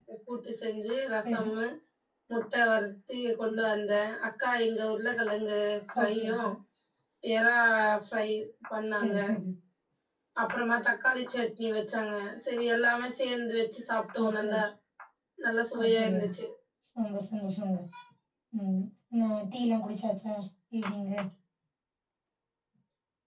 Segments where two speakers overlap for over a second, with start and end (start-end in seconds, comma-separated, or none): none